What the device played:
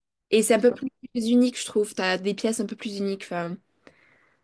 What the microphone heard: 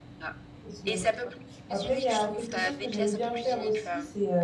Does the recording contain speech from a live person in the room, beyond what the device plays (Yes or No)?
Yes